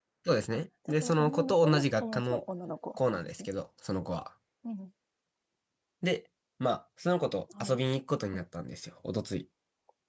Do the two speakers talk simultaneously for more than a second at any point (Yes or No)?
Yes